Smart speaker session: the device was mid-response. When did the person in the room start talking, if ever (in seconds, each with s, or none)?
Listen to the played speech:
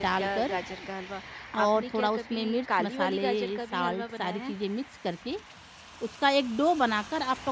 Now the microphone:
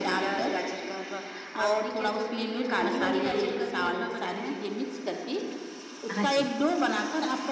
6.2 s